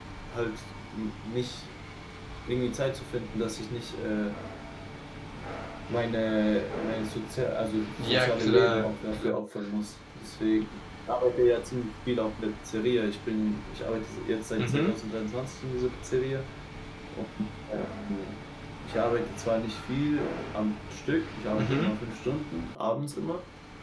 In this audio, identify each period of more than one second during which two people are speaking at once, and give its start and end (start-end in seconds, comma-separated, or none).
8.0-9.4